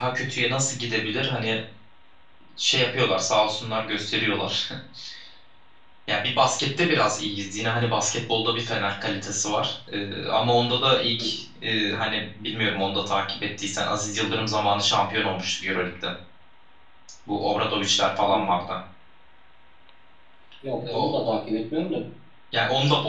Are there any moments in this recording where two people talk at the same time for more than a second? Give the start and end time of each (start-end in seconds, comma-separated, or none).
none